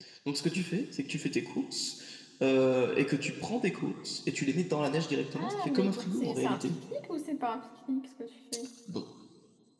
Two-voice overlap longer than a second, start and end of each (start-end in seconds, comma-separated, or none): 5.3-6.7